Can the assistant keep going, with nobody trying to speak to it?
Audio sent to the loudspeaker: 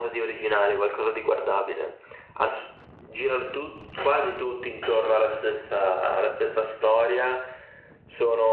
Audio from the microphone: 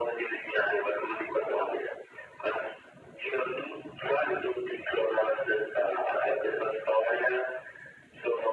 Yes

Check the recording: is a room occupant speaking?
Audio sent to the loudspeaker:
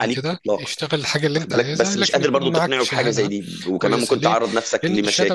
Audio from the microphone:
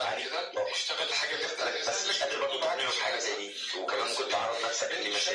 No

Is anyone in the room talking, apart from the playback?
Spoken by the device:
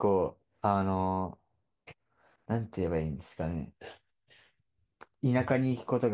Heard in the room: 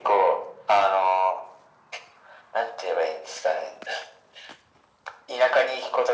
No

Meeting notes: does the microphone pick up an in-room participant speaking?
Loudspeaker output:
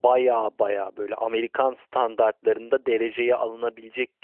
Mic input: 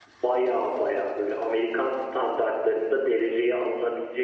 No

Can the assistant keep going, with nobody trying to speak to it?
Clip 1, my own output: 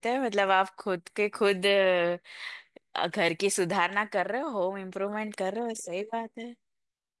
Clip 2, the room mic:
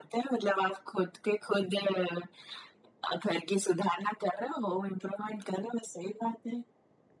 Yes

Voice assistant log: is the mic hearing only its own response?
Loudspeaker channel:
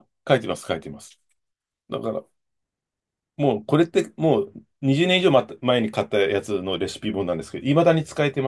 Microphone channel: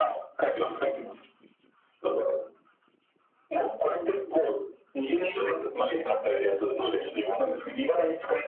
Yes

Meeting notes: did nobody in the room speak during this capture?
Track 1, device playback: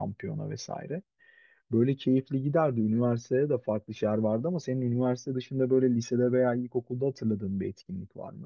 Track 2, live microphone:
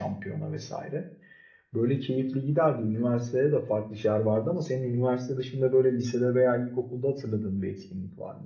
Yes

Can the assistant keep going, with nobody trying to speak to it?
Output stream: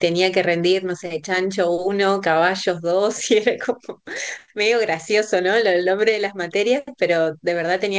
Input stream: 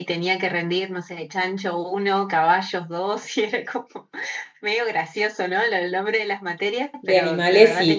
No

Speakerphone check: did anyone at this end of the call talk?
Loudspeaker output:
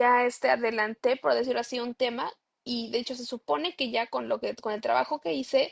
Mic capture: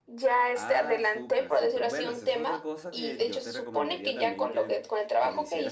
Yes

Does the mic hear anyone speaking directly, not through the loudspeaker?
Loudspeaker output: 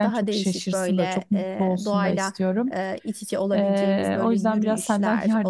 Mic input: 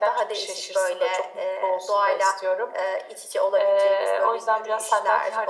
No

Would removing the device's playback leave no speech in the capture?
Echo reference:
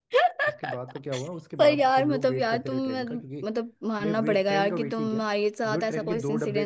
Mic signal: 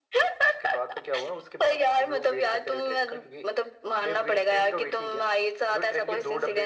Yes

